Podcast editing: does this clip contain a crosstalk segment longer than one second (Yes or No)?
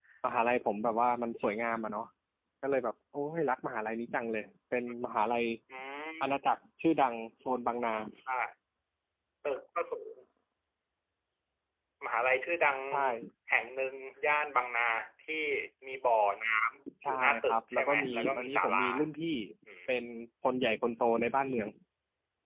Yes